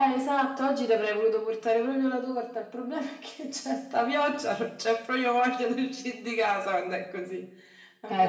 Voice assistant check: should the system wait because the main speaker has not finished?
No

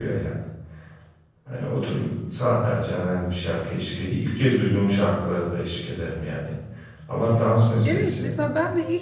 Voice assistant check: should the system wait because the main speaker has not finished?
No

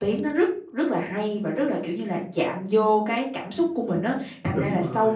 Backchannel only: Yes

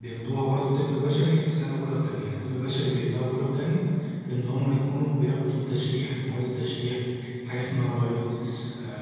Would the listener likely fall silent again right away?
Yes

